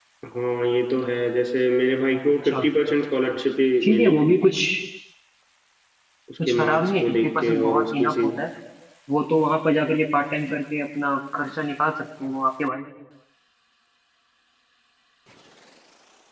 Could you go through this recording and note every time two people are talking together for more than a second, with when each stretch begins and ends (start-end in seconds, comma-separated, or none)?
6.4-8.3